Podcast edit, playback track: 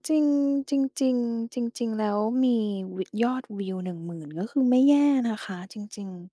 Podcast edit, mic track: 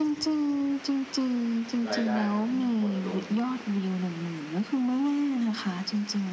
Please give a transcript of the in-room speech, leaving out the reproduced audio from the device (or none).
รายได้ผมหดลง